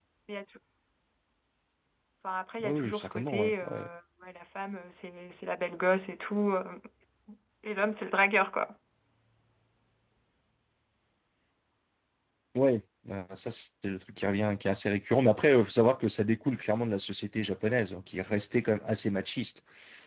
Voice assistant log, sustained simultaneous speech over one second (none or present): present